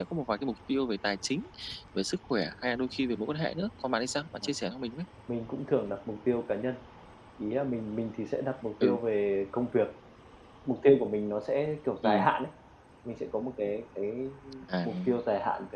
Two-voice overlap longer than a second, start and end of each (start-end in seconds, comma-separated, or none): none